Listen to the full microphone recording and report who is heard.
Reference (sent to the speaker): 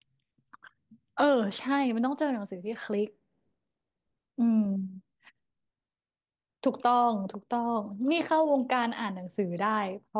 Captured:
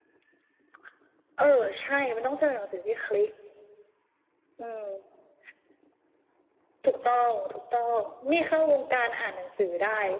echo only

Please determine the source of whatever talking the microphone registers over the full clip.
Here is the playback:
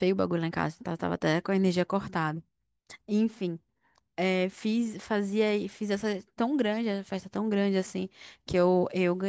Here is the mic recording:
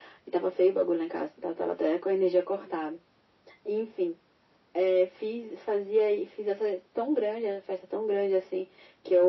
echo only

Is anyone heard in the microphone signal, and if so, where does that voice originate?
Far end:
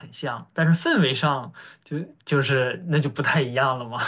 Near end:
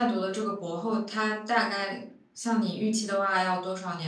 user only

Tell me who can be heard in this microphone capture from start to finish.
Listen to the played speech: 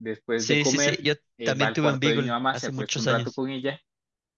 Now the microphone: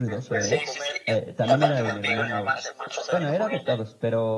both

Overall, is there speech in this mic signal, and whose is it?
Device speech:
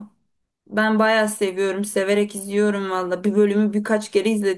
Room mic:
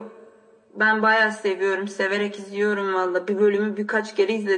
echo only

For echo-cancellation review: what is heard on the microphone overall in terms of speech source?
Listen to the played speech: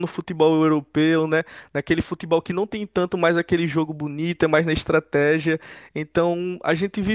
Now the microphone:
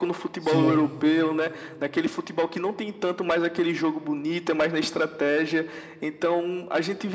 both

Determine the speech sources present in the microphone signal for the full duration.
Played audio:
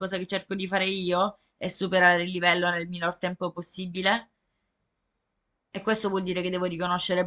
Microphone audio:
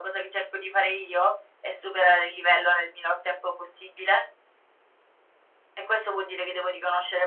echo only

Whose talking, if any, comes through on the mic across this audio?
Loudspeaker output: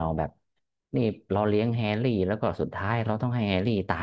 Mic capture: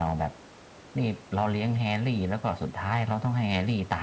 echo only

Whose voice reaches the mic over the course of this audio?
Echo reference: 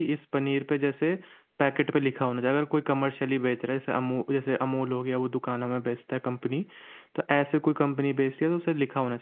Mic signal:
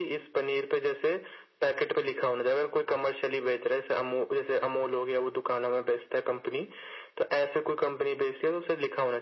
echo only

